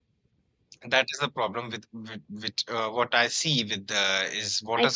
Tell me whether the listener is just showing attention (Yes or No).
Yes